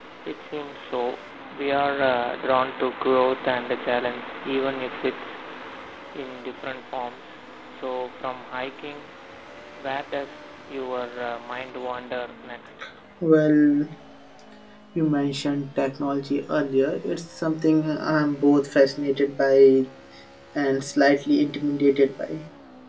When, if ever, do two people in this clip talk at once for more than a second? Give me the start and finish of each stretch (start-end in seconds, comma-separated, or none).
none